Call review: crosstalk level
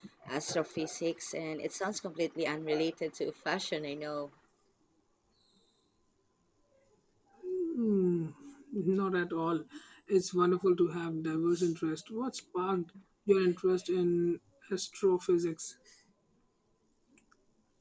none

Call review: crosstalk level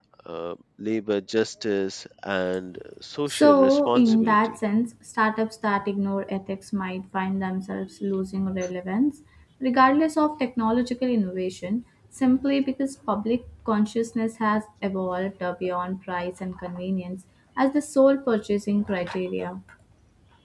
present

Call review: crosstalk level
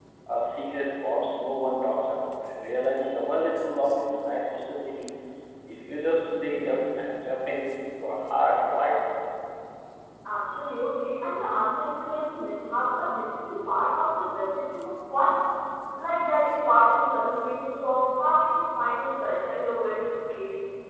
none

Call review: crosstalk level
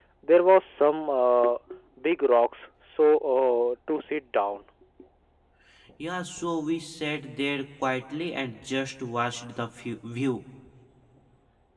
none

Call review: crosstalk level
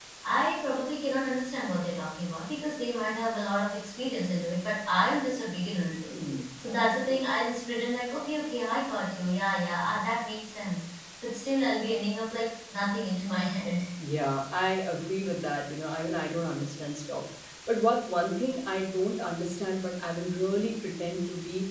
none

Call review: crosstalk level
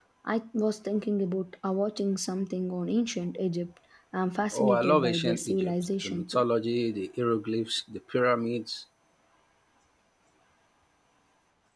present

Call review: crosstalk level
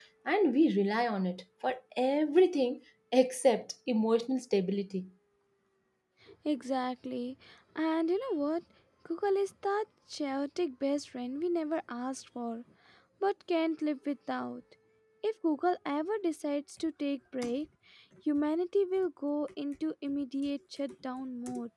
none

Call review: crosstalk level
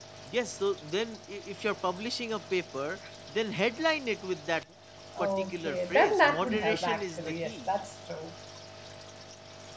present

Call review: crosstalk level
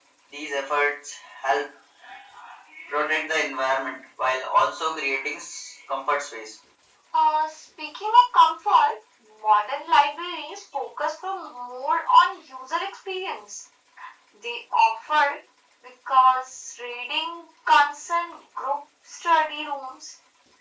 none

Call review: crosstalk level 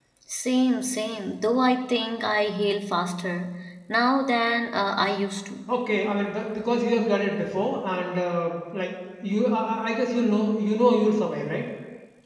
none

